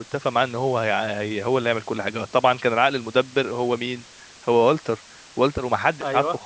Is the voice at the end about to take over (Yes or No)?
No